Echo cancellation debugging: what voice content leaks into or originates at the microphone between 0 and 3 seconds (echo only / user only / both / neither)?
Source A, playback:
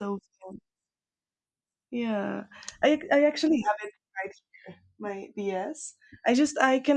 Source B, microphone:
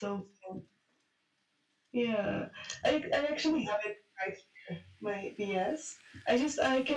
echo only